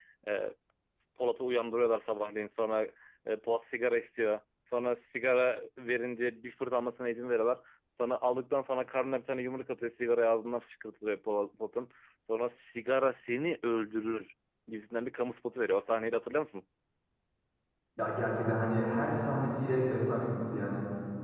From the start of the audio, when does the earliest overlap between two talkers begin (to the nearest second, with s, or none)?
none